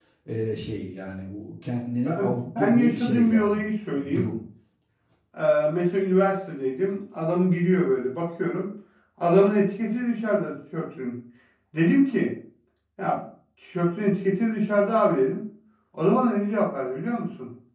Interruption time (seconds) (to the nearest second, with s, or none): 2 s